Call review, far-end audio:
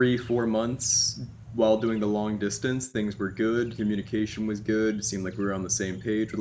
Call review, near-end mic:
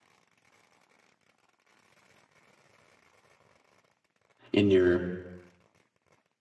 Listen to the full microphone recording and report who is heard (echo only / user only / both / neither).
user only